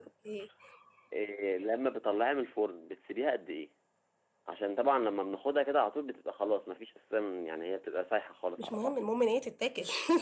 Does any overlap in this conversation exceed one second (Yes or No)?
No